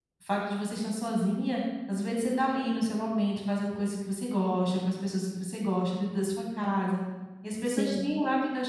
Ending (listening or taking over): listening